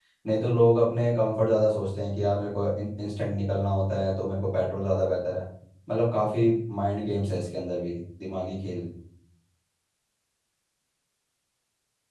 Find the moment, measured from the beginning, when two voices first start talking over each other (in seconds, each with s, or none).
none